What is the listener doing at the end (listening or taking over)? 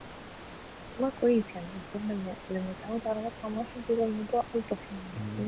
taking over